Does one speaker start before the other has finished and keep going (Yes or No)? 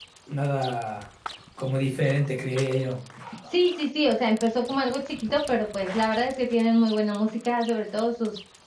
No